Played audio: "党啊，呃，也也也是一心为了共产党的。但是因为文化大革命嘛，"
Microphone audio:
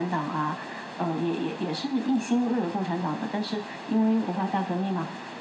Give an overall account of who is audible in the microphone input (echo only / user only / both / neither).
echo only